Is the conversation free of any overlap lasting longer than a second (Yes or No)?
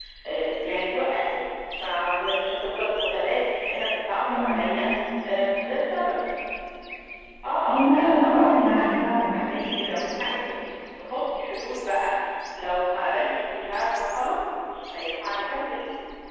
No